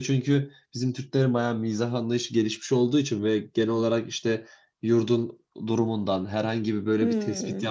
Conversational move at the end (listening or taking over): listening